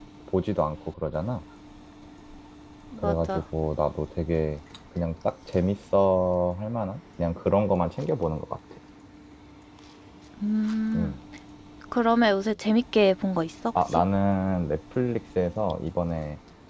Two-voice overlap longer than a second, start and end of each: none

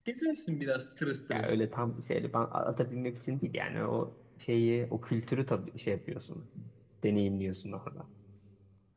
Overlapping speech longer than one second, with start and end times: none

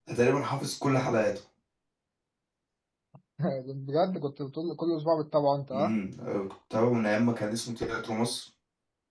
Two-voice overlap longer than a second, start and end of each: none

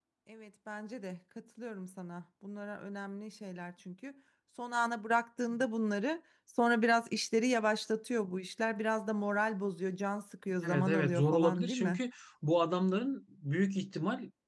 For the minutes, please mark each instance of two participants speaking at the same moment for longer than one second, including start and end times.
10.7-12.0

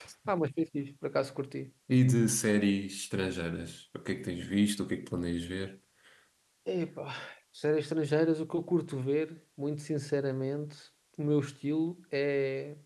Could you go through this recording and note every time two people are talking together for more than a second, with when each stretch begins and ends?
none

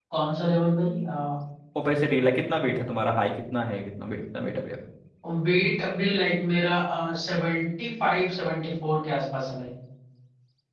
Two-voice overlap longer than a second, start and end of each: none

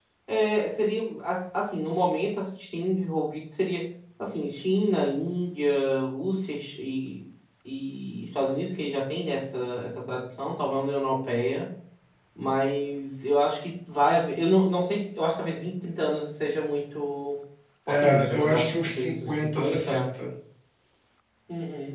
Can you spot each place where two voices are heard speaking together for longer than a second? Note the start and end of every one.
17.9-20.1

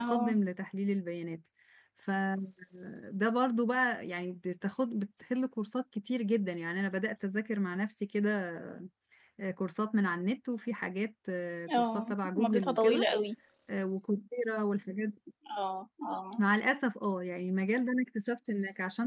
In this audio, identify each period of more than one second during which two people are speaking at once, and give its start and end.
11.8-13.1

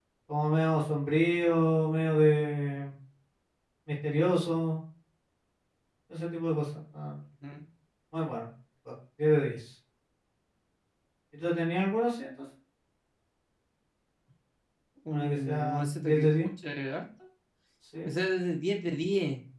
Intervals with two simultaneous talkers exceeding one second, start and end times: 15.2-16.5

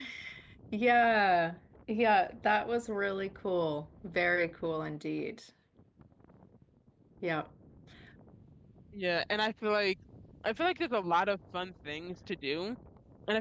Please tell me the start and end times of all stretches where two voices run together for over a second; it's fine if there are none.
none

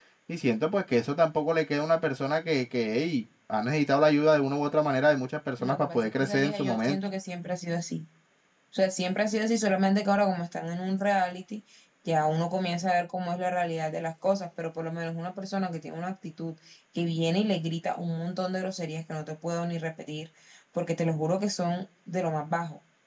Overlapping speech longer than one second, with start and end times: 5.6-7.0

